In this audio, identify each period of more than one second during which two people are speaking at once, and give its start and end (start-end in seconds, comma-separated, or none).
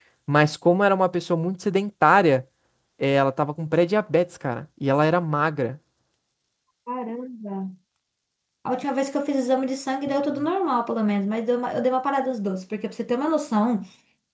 none